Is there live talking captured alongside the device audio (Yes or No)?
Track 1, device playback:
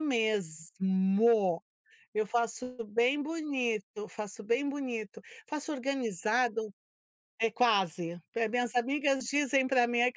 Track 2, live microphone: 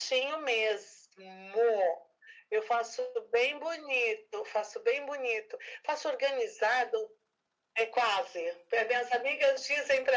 No